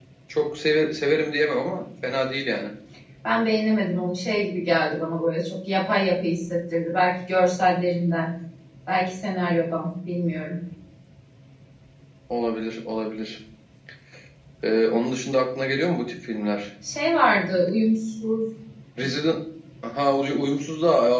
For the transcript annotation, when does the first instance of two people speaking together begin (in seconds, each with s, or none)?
none